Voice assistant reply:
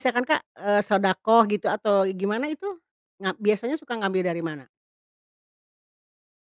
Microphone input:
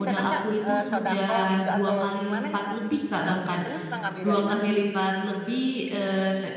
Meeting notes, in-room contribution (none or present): present